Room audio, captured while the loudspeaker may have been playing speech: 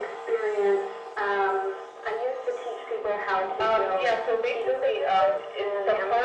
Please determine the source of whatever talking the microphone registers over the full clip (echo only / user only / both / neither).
echo only